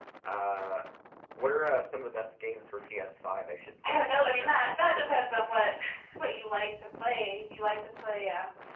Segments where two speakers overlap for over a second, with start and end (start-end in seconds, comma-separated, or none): 3.9-5.7